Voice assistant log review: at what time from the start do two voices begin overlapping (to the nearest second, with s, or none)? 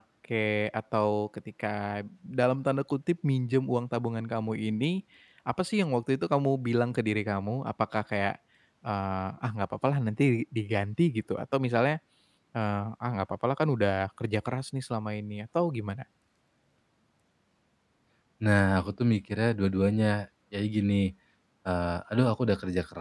none